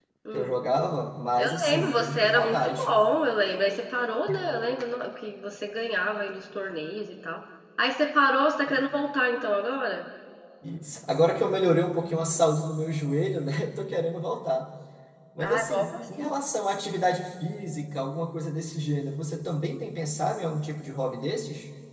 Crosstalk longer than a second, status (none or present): present